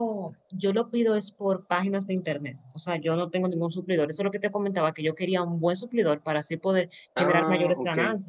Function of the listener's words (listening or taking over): listening